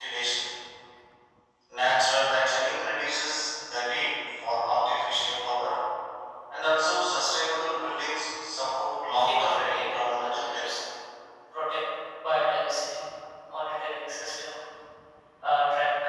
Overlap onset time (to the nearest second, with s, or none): 9 s